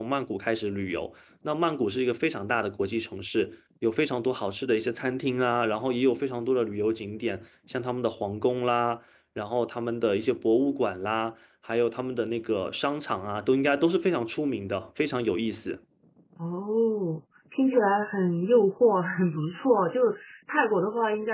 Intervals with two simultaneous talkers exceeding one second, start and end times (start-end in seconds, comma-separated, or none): none